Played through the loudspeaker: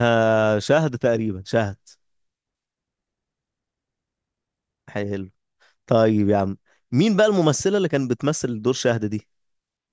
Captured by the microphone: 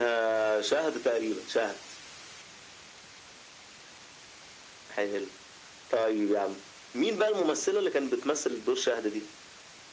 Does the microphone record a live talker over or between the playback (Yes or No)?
No